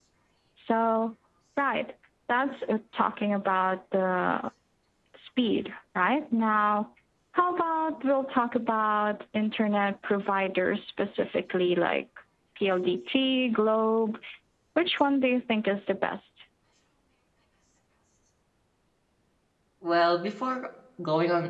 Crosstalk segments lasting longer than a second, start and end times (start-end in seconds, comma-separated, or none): none